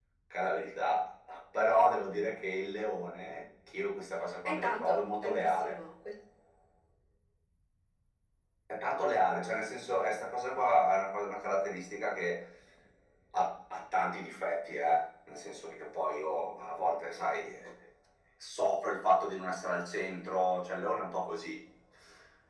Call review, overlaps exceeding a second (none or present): present